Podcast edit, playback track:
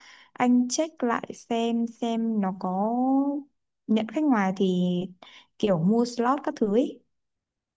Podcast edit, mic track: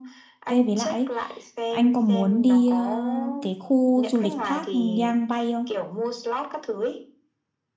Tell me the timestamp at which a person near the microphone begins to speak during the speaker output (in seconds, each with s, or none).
0.5 s